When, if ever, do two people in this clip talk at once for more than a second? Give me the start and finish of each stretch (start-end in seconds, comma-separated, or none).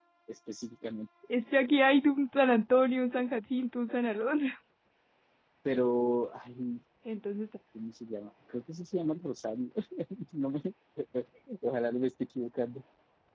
none